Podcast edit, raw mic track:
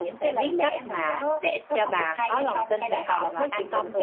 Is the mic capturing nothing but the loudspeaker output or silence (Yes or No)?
No